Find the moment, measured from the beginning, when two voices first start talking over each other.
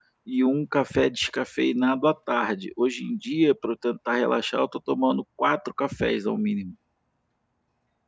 none

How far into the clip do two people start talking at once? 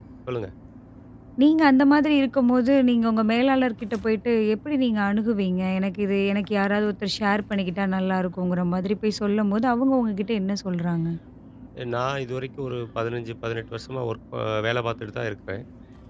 none

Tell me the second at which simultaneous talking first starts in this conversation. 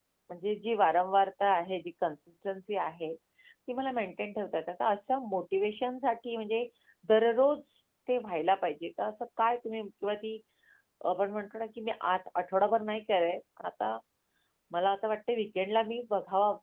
none

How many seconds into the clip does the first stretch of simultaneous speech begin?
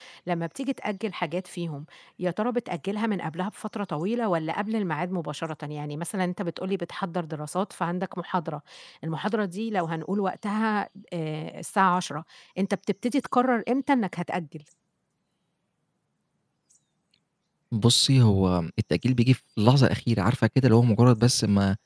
none

